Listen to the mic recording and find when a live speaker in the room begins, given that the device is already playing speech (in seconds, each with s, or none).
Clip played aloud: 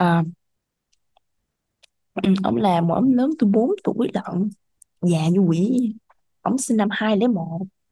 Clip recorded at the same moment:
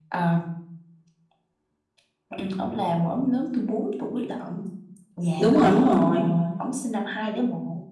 5.4 s